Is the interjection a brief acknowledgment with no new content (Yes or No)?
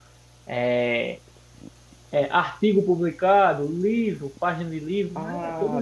No